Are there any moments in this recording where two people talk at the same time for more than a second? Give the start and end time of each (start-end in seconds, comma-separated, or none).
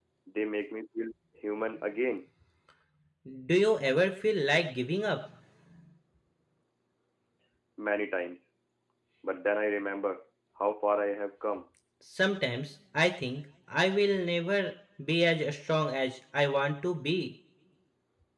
none